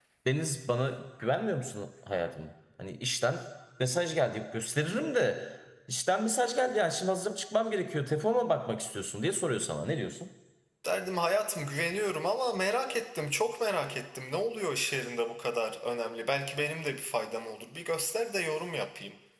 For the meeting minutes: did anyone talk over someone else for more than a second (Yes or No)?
No